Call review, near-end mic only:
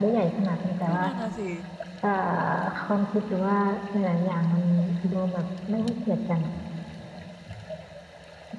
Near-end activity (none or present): present